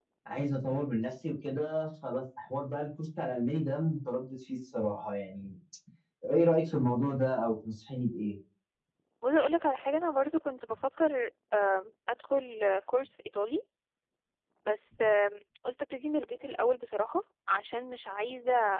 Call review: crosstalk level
none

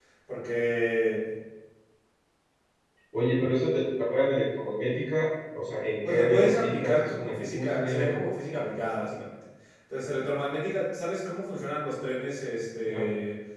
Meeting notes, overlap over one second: present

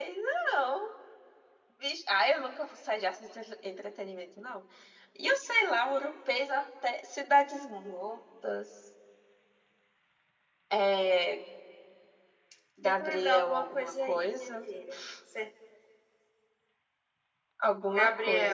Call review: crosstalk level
present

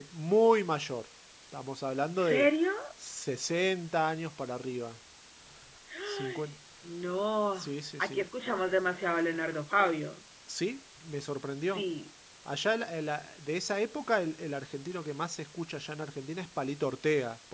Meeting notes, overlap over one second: none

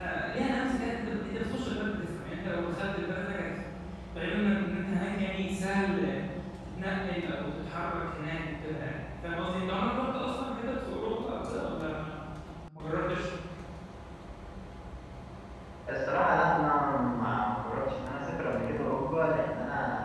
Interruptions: none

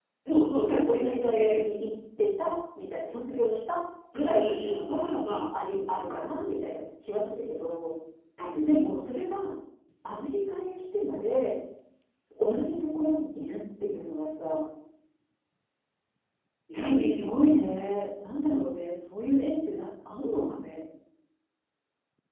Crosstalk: present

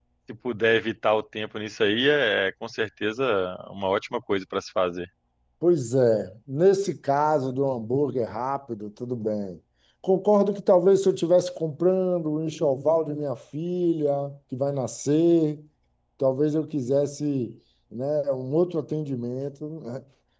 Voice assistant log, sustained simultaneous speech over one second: none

